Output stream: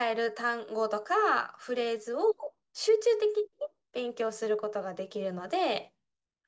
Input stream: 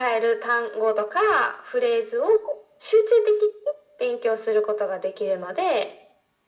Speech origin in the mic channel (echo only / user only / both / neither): echo only